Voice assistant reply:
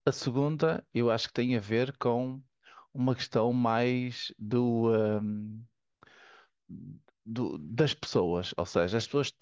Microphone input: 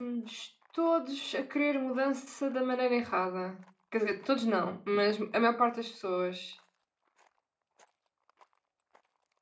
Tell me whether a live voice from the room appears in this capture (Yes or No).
Yes